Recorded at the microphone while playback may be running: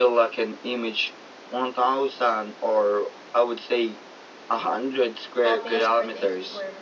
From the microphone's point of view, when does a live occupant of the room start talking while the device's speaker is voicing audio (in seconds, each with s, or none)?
5.4 s